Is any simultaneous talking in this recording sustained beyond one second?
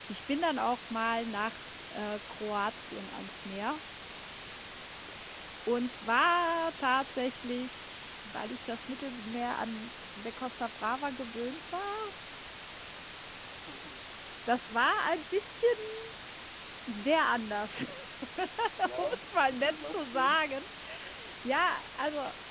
Yes, from 19.0 s

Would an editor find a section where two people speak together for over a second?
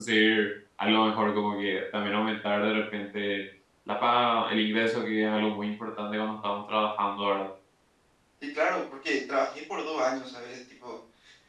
No

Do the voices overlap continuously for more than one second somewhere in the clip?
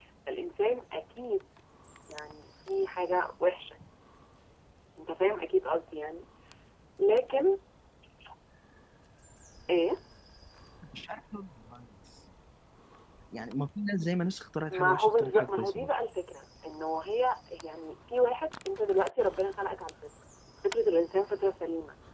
Yes, from 14.7 s

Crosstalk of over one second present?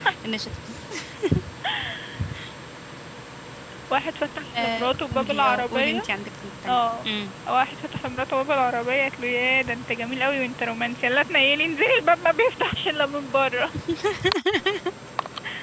Yes, from 4.6 s

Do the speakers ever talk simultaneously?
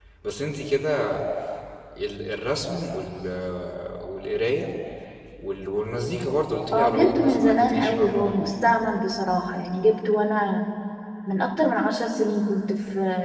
Yes, from 6.7 s

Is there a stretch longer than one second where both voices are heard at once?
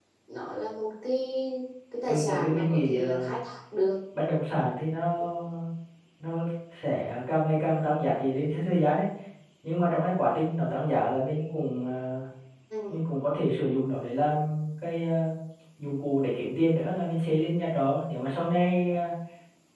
Yes, from 2.1 s

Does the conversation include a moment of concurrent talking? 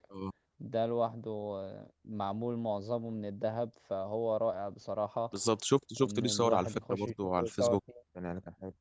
Yes, from 6.0 s

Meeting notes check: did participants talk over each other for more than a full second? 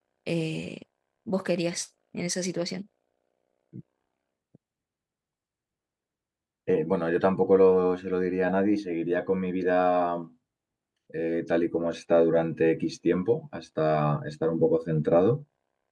No

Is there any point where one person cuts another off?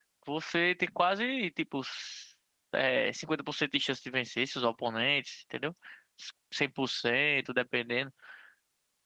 No

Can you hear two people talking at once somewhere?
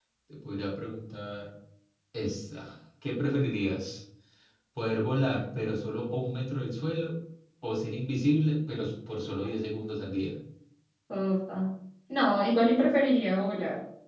No

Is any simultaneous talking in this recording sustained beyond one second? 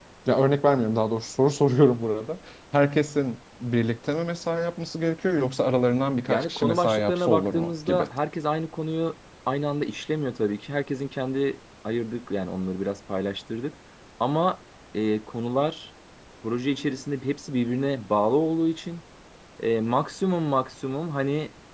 Yes, from 6.3 s

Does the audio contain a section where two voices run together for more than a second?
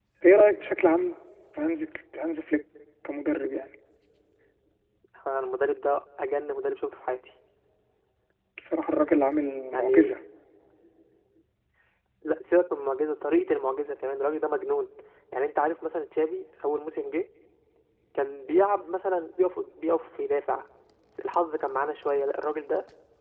No

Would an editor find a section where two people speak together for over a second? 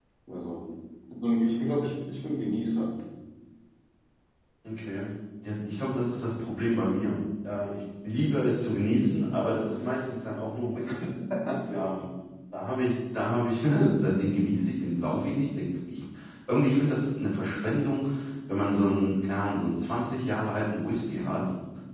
No

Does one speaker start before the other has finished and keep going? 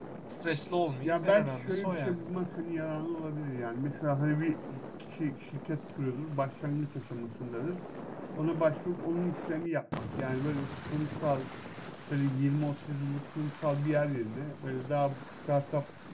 Yes, from 1.0 s

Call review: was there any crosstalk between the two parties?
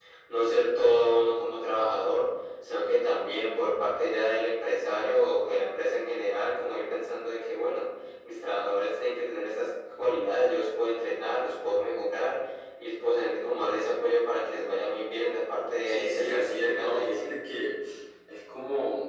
Yes, from 15.9 s

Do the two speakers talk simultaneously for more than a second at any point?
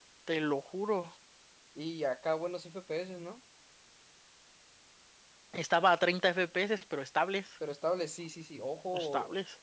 No

